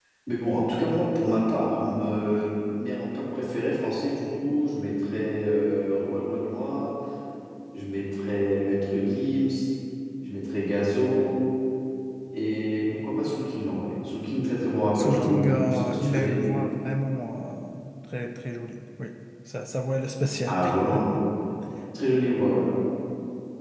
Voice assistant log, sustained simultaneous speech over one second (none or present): present